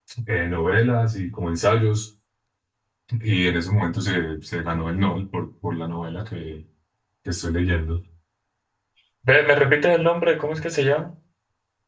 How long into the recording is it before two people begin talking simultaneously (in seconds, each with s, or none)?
none